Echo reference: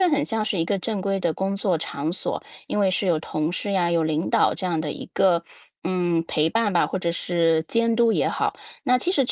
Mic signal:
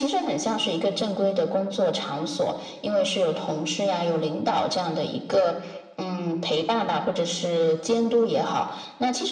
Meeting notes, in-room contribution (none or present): none